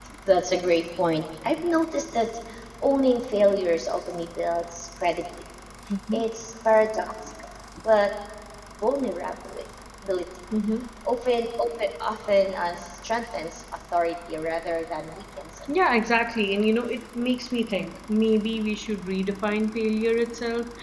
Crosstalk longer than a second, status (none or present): none